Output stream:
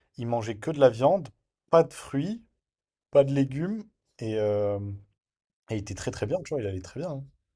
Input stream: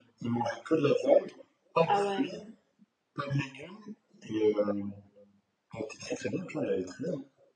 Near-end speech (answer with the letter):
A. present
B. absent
A